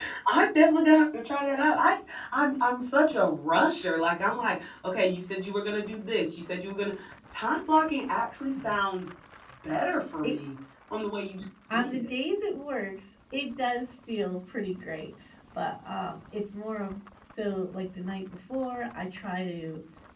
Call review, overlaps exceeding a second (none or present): none